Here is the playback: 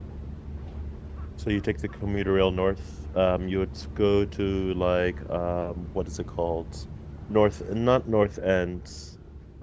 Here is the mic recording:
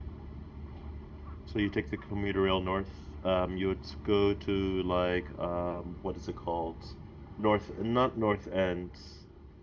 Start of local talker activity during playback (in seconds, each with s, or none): none